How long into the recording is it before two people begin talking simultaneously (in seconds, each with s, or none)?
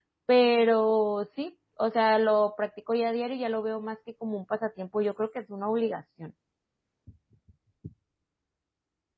none